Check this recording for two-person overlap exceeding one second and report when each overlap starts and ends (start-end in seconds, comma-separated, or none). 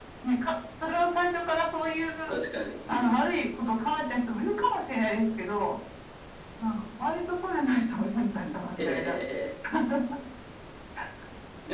none